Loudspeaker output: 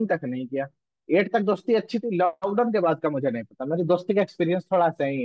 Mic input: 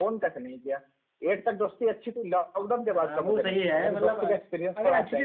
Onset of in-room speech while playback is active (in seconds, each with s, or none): 2.9 s